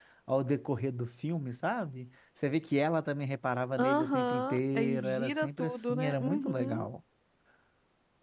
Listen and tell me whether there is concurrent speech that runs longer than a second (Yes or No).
Yes